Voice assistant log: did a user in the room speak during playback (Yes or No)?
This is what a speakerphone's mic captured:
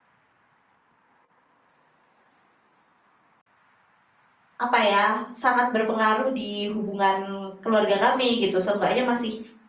Yes